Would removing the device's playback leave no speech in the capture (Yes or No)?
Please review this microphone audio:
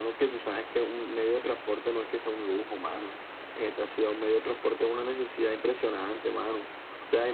Yes